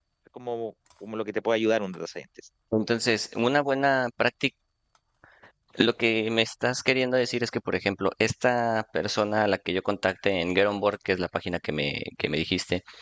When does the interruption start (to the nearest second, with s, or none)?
none